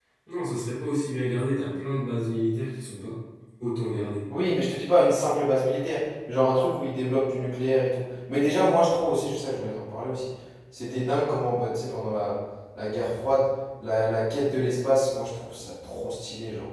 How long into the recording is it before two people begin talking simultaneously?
none

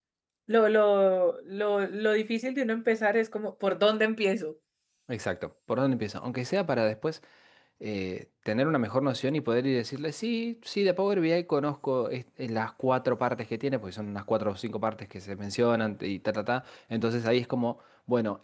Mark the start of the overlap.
none

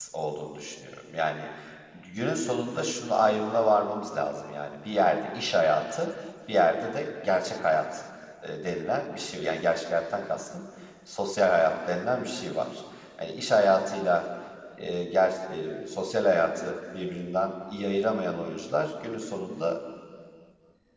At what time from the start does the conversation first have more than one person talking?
none

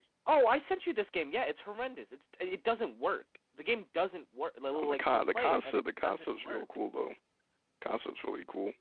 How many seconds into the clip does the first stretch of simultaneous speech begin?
5 s

